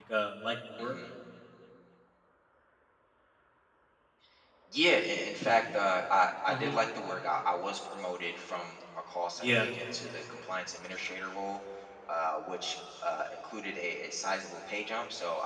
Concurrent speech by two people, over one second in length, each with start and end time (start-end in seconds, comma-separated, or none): none